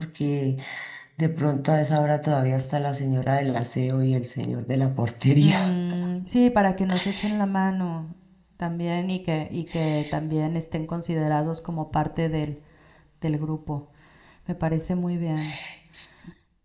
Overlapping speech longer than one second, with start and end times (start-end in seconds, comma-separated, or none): none